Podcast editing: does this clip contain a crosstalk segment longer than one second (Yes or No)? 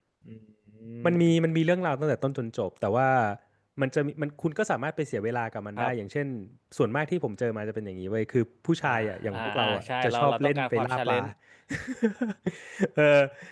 Yes